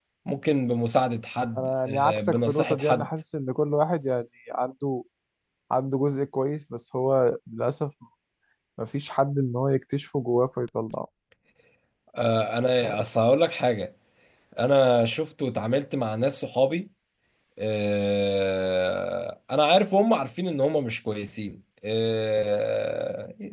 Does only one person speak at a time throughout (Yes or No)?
No